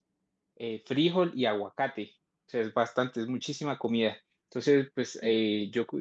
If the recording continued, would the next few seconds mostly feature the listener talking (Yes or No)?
No